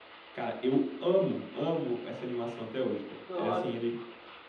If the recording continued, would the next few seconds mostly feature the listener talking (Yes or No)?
No